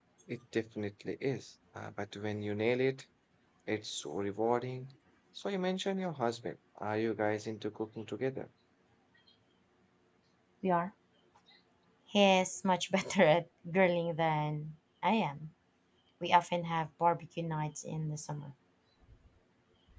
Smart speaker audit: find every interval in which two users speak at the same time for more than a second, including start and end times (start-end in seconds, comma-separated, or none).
none